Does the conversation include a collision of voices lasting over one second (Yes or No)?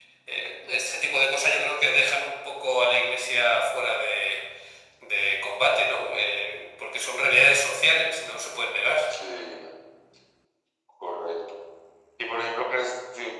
No